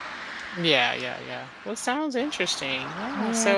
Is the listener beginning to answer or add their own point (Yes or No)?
Yes